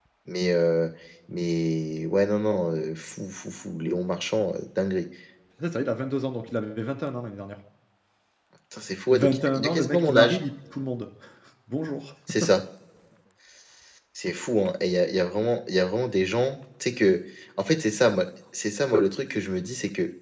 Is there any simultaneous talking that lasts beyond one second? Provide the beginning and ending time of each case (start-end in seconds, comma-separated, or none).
9.1-10.4